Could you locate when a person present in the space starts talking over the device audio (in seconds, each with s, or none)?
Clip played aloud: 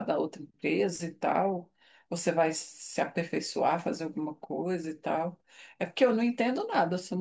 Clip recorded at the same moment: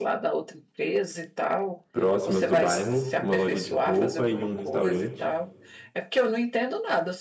1.9 s